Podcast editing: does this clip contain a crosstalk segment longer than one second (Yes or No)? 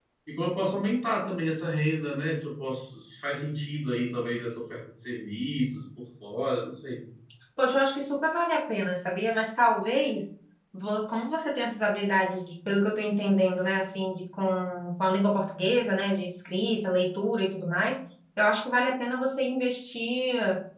No